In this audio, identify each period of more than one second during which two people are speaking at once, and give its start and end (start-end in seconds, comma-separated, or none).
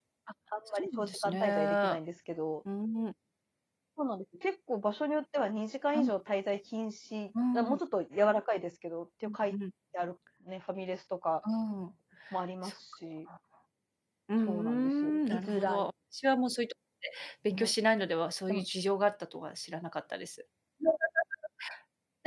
0.8-2.0, 14.5-15.9